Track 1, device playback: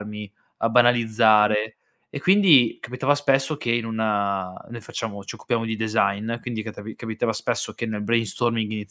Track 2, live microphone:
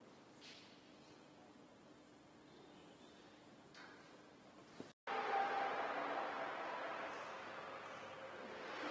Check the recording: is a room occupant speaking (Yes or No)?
No